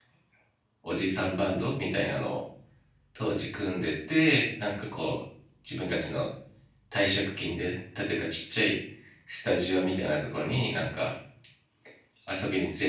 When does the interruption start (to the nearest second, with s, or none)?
none